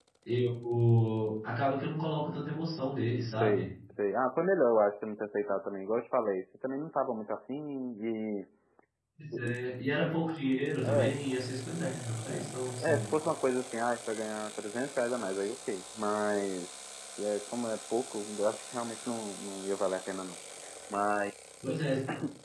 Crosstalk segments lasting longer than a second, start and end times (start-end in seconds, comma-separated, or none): none